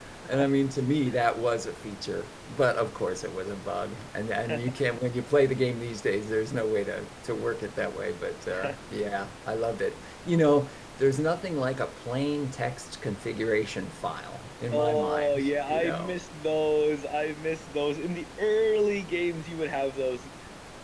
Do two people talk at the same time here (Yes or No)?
Yes